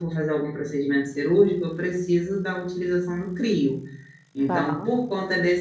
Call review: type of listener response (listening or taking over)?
listening